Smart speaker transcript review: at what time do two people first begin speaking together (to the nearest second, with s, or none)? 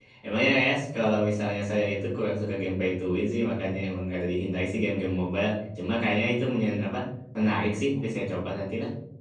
none